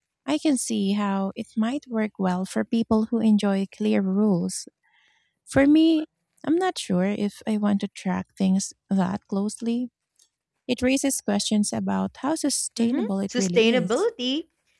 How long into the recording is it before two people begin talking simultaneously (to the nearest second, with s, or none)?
13 s